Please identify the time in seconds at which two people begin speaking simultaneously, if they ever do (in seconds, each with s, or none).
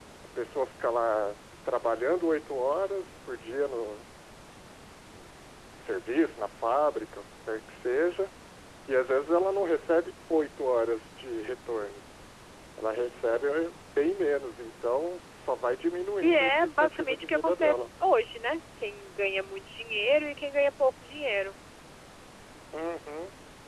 16.2 s